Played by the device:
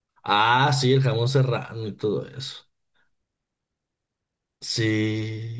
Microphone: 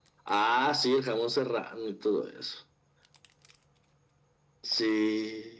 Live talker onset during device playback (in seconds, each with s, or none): none